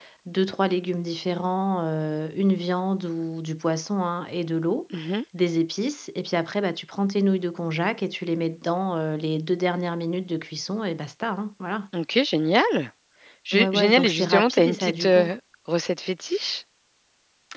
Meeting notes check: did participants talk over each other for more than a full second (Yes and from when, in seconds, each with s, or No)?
Yes, from 13.5 s